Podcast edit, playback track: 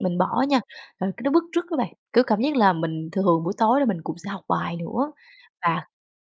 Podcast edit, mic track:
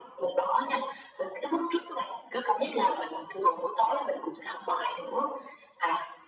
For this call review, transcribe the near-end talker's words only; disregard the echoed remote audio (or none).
none